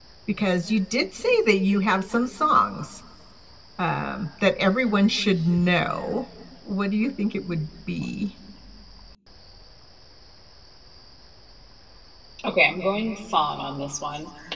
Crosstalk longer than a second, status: none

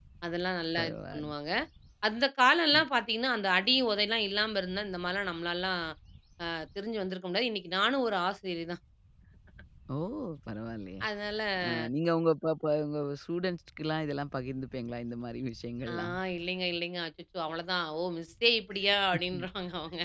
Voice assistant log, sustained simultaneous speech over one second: none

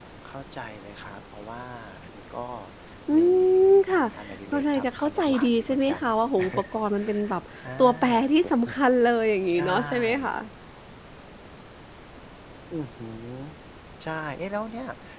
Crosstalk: present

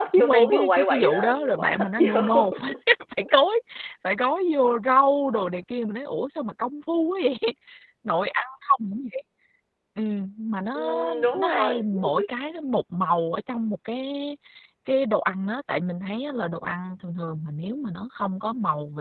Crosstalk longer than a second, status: present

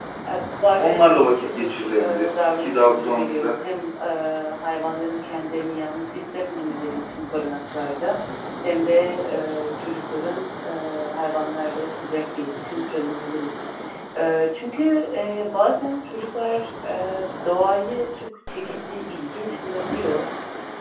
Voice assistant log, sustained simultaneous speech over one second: present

